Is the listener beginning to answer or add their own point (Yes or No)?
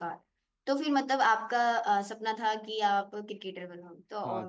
Yes